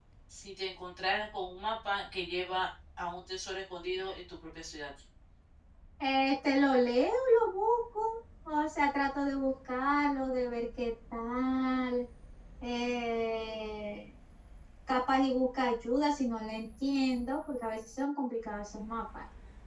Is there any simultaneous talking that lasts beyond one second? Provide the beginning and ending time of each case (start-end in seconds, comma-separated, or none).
none